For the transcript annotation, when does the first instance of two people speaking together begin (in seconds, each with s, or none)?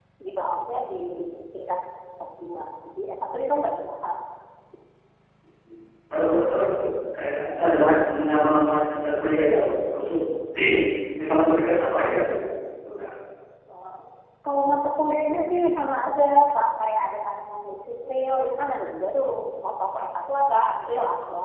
none